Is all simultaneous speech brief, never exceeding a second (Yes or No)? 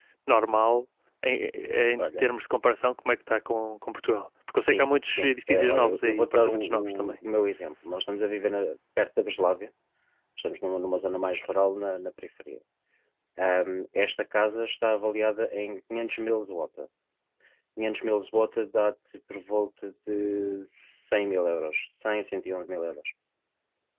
No